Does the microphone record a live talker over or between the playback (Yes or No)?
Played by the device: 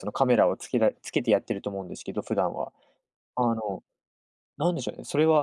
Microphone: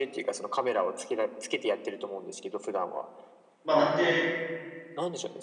Yes